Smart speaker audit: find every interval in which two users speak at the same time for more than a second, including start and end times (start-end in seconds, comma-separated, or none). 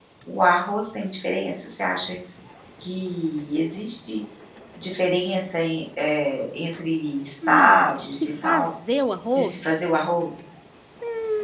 7.5-8.7